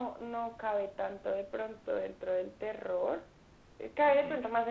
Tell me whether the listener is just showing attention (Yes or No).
Yes